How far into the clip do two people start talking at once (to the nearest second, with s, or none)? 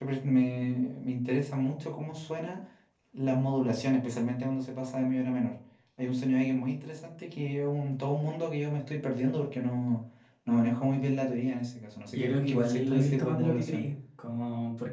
12 s